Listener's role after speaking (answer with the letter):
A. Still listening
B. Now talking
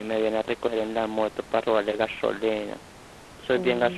B